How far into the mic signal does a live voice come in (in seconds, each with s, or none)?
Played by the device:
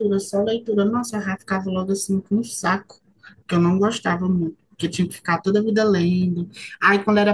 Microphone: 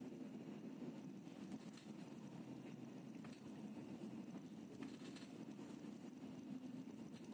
none